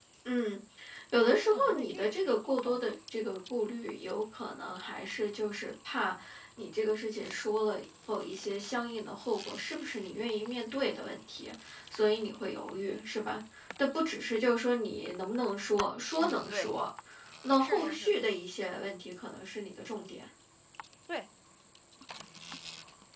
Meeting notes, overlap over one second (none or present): present